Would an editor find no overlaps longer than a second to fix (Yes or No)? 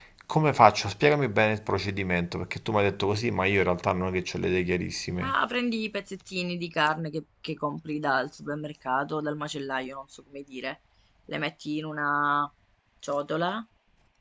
Yes